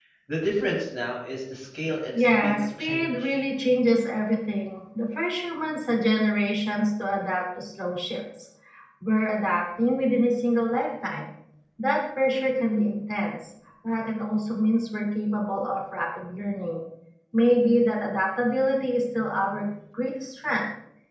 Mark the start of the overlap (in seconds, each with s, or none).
2.1 s